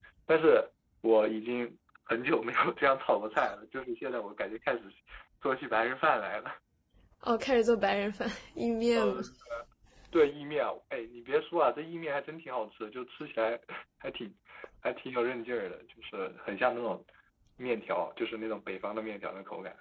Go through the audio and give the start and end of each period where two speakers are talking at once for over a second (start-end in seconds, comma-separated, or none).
none